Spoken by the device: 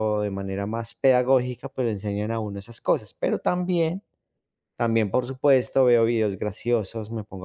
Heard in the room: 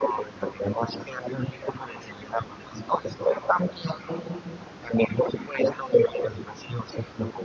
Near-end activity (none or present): none